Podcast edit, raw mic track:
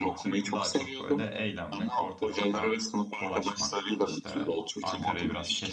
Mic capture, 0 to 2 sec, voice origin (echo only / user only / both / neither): both